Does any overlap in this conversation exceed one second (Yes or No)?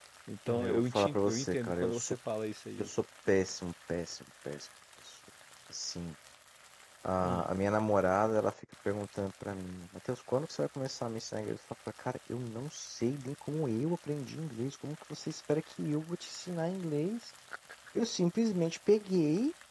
Yes